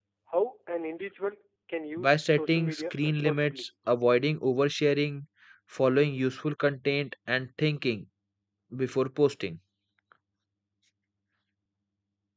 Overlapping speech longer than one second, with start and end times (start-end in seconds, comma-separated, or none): 2.0-3.6